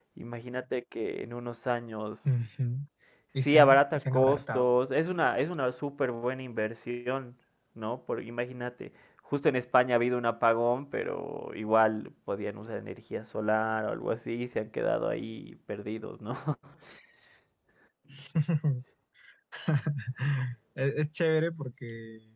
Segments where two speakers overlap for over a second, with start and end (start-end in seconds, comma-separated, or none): 3.4-4.7